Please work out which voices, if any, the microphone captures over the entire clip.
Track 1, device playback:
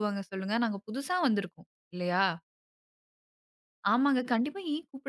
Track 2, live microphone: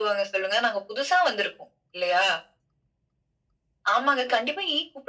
echo only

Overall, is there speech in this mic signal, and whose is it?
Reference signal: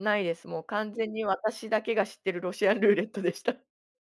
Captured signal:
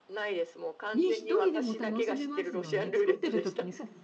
both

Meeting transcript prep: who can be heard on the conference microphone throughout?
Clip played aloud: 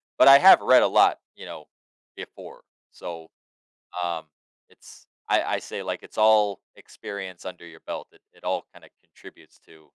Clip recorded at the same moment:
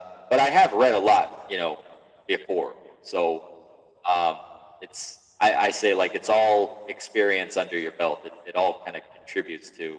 echo only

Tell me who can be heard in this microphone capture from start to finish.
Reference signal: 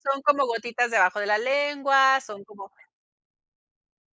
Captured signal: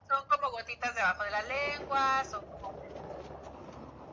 echo only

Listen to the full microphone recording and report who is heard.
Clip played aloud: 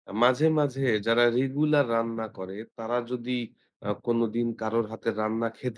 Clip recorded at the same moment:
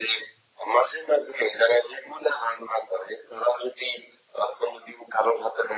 echo only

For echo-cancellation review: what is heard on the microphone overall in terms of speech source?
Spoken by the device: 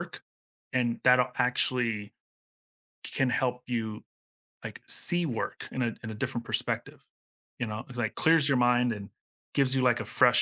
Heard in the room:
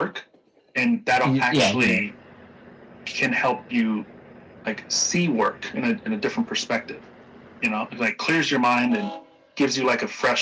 both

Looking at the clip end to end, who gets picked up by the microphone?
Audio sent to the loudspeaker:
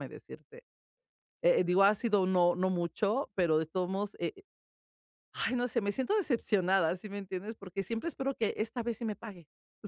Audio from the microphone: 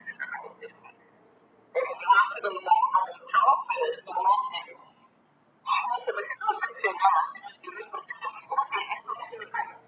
echo only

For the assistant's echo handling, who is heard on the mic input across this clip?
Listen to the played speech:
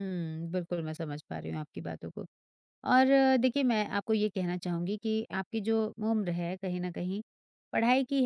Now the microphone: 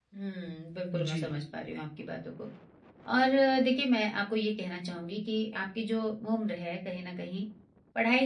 both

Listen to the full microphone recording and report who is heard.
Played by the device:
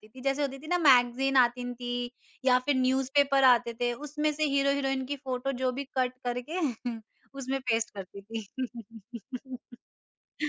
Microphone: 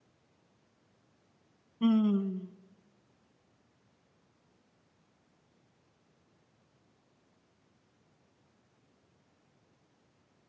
user only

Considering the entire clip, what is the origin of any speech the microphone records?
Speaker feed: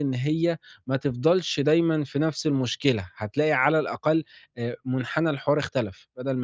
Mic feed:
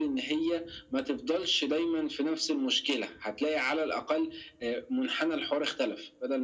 echo only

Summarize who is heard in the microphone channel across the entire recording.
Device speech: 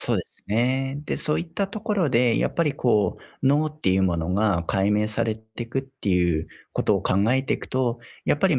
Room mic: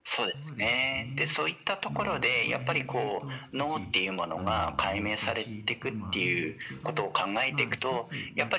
both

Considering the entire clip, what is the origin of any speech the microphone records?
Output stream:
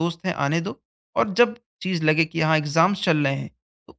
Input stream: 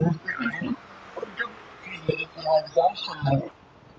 both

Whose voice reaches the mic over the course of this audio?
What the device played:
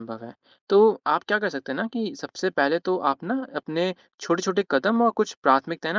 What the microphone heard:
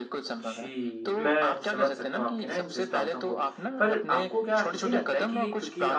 both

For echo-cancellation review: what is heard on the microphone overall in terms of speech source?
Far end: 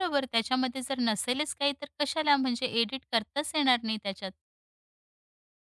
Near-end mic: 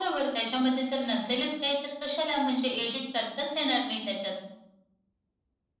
echo only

